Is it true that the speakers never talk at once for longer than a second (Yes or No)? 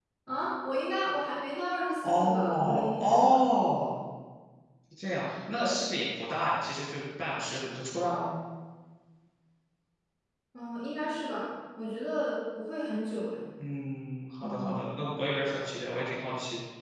No